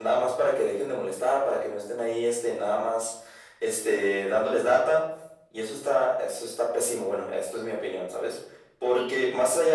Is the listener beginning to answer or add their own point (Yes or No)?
No